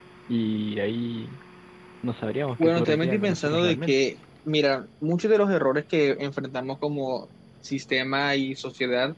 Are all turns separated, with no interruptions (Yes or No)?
No